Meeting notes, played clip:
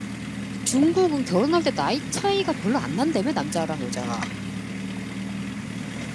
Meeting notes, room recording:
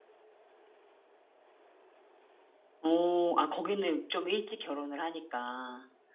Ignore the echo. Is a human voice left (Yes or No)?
Yes